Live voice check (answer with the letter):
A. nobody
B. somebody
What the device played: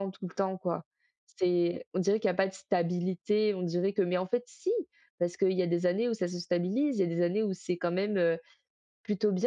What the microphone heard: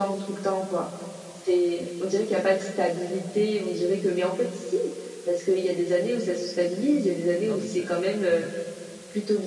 B